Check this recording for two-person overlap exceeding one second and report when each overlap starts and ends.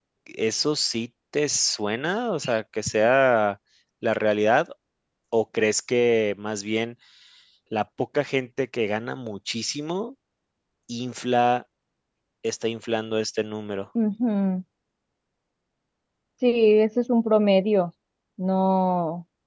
none

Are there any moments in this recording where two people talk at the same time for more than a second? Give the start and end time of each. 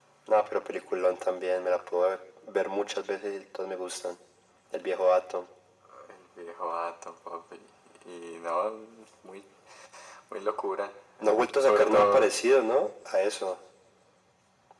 11.2-12.4

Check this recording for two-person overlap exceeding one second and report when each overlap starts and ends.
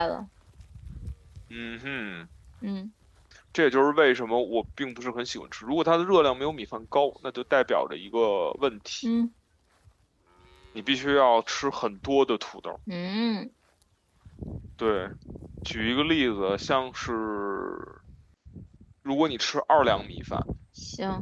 none

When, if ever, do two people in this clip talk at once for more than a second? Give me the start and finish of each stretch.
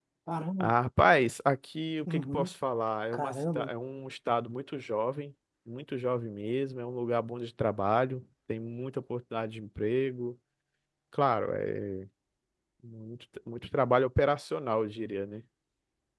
none

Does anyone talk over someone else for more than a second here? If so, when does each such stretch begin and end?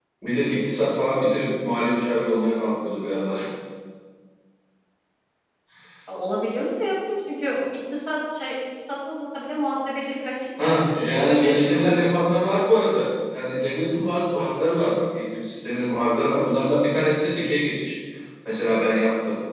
10.6-12.1

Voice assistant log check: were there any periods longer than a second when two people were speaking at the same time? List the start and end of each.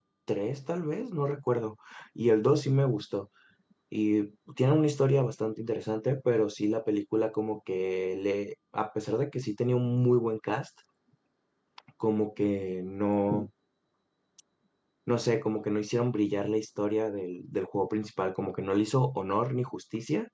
none

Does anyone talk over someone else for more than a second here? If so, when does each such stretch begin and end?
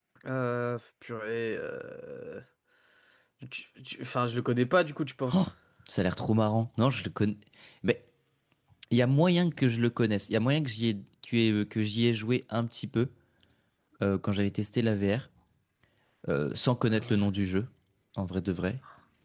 none

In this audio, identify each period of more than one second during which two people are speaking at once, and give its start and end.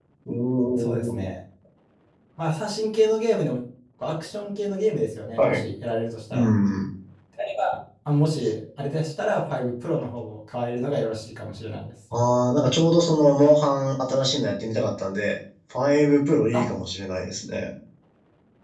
none

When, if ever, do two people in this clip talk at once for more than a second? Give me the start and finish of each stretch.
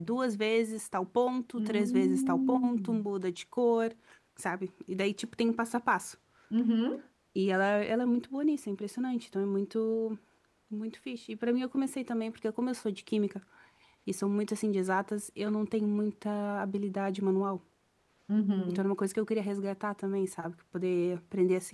1.6-3.1

